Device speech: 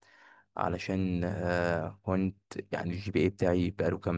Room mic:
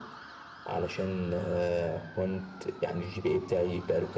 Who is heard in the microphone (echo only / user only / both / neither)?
echo only